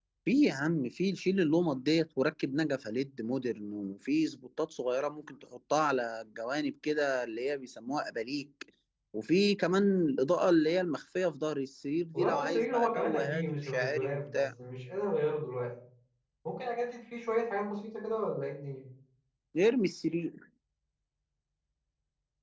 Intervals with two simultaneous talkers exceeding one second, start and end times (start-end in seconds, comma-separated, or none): 12.1-14.4